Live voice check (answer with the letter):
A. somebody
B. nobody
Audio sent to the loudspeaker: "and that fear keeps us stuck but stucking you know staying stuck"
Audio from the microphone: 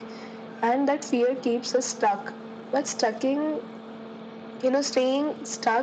B